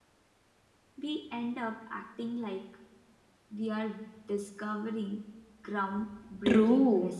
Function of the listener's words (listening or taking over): taking over